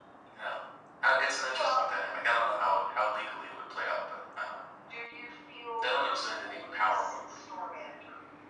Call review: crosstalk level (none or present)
present